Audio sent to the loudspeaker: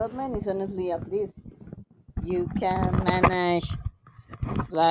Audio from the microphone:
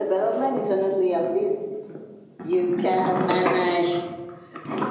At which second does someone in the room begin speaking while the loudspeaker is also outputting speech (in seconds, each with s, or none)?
none